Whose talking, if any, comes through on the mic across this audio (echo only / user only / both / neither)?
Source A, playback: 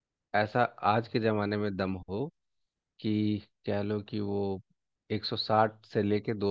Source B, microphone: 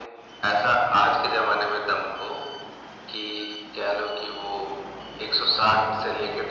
echo only